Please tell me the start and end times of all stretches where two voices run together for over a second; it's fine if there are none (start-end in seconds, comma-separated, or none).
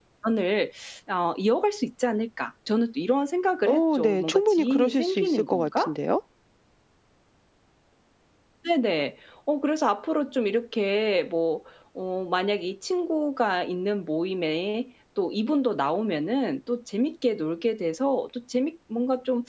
3.7-5.9